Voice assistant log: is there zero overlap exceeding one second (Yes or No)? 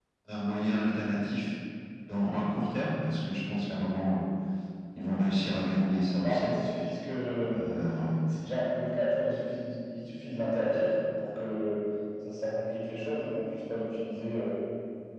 Yes